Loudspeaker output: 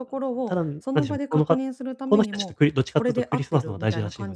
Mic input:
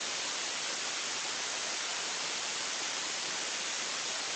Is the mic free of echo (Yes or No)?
Yes